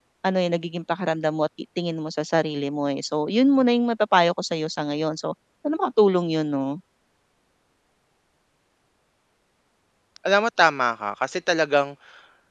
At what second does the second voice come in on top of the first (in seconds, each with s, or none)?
none